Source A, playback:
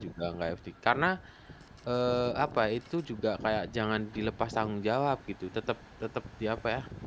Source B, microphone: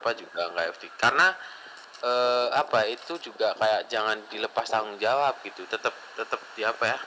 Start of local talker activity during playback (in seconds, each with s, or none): none